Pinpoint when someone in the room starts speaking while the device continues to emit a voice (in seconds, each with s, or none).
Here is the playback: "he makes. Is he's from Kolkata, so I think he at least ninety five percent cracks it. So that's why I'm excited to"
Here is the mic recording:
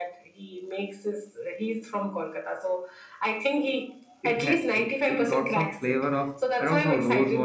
4.2 s